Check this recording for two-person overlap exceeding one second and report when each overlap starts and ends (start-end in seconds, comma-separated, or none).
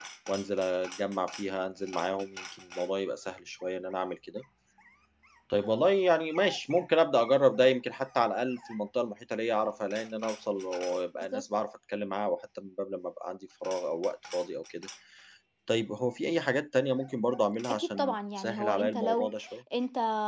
17.7-19.3